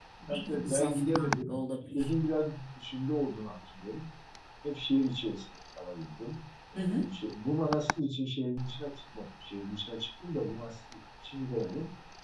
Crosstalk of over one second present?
Yes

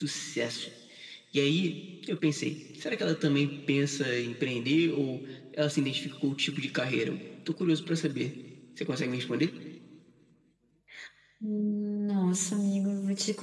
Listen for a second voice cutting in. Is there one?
No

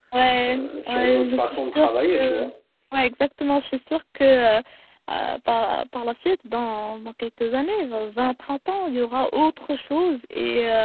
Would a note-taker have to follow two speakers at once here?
Yes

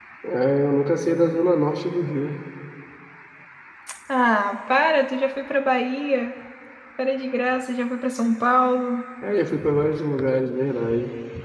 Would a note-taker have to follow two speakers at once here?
No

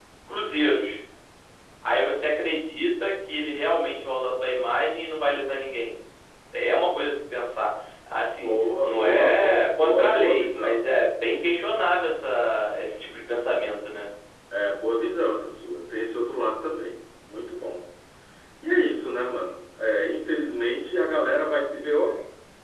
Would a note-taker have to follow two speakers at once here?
Yes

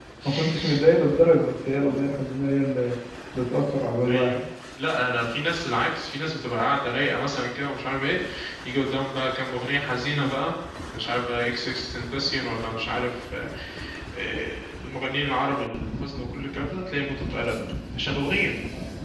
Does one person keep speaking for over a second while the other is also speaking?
No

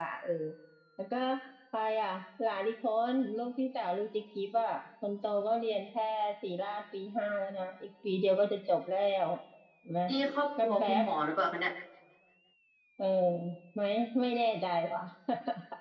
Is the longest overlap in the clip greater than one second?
No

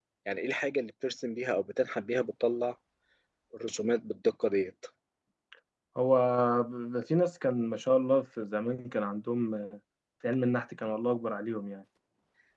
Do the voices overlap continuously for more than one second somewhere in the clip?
No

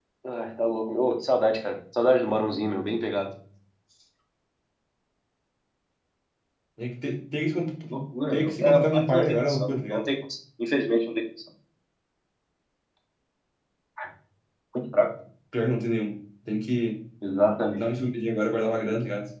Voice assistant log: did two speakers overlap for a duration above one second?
Yes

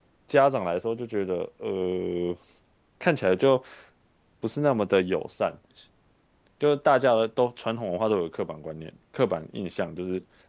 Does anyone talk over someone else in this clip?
No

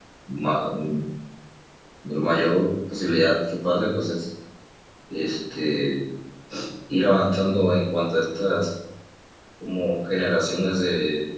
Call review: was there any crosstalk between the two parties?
No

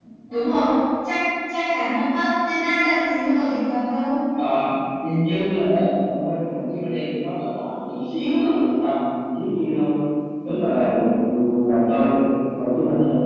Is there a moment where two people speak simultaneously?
No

